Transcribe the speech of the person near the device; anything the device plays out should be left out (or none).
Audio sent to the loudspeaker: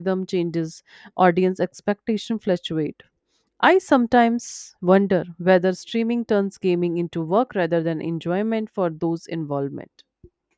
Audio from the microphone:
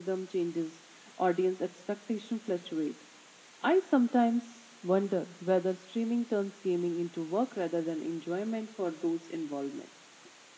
none